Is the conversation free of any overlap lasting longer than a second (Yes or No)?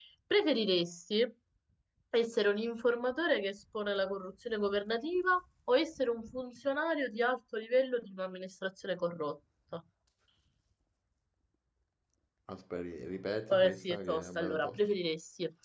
No